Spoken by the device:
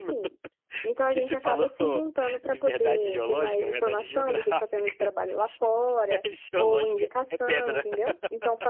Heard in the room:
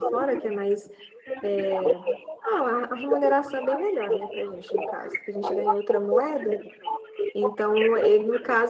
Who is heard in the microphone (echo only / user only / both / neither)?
both